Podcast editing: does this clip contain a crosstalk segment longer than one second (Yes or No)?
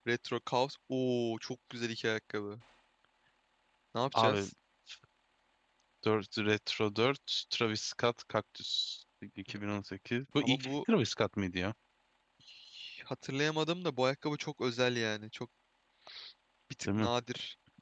No